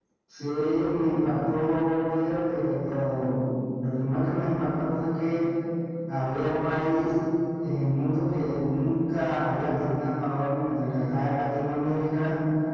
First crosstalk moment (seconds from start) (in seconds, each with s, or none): none